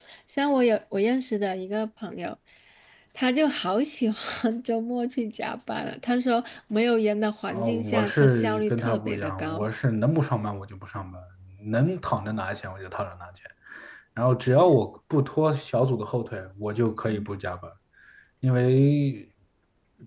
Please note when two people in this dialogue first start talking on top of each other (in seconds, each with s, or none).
7.5 s